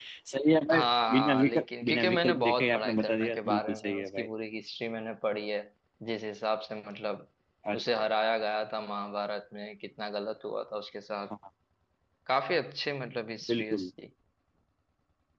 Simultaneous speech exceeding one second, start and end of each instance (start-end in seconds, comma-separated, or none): 0.7-4.3